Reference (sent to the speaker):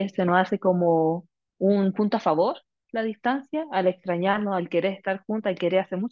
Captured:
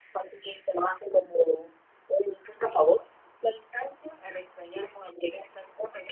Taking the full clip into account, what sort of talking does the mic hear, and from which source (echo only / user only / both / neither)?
echo only